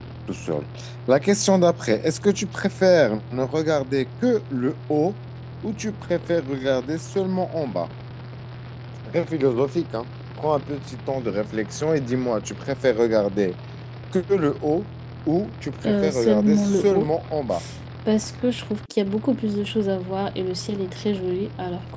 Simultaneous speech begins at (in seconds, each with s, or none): 15.8 s